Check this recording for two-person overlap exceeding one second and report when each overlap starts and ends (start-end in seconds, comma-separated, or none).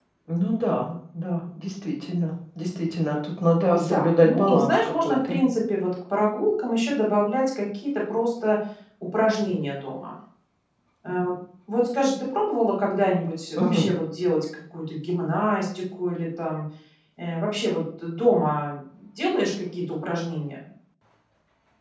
3.7-5.4